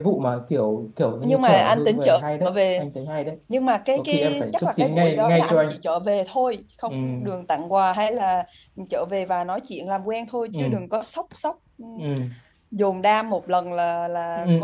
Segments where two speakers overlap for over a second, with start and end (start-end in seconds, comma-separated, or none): 1.2-2.8, 3.9-5.7